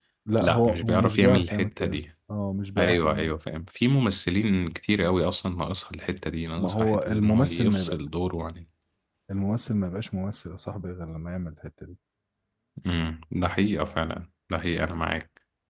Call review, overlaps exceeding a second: present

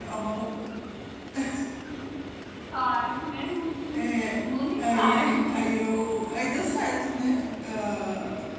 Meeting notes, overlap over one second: present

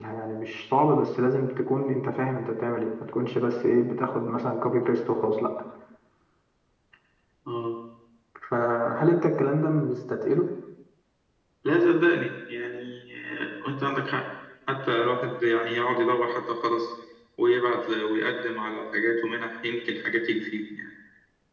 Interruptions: none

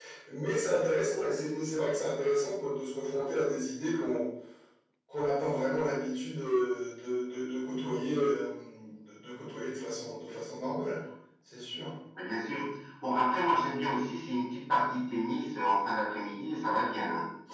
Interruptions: none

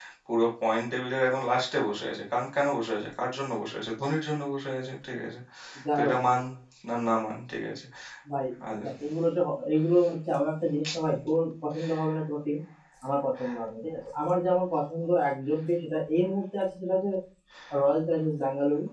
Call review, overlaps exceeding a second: none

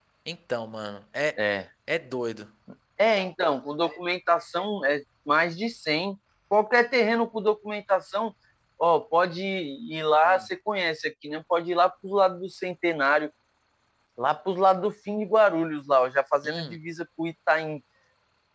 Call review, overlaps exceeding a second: none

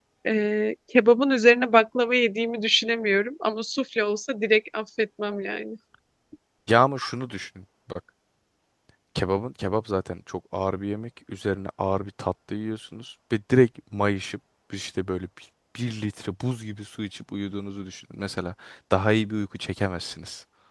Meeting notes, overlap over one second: none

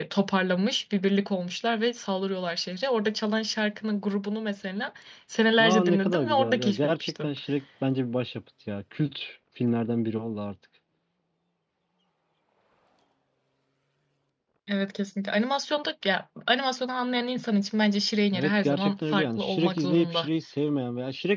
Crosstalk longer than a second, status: present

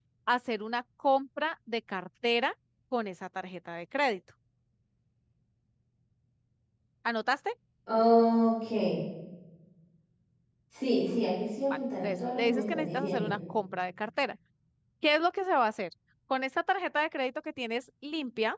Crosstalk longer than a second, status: present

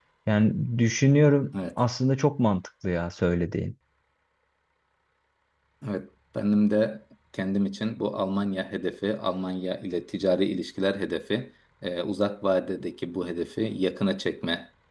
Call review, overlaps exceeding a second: none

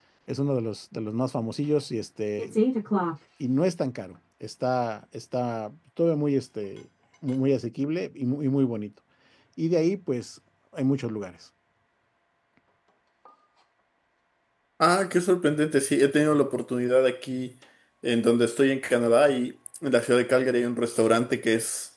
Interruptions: none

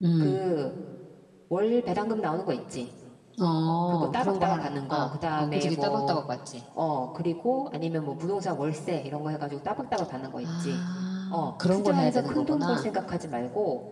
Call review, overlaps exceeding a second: present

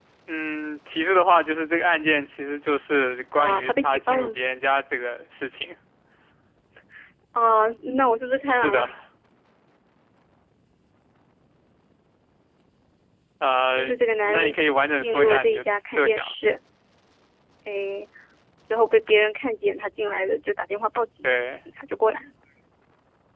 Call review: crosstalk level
present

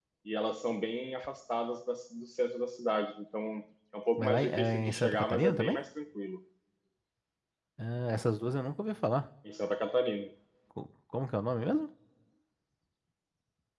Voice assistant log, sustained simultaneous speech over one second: present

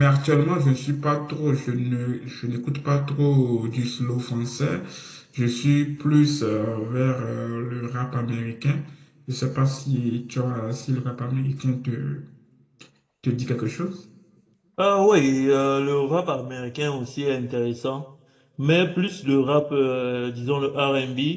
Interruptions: none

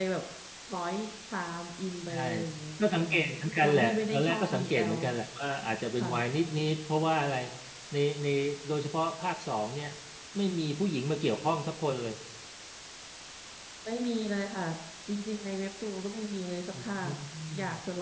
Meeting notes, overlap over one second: present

